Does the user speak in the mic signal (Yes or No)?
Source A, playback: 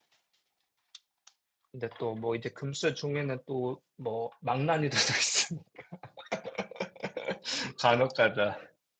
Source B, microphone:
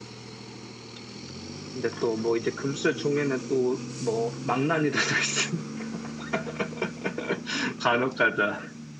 No